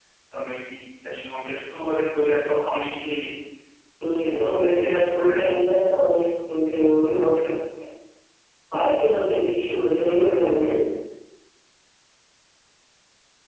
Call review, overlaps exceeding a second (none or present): present